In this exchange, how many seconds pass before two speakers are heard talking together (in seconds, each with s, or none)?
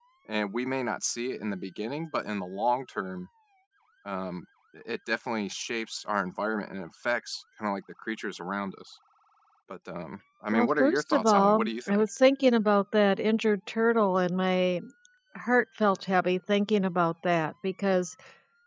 10.5 s